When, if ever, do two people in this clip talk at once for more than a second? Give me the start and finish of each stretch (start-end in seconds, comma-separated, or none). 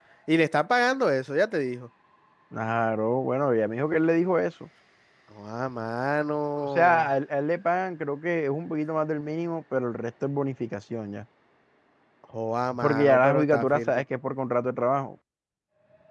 12.8-14.0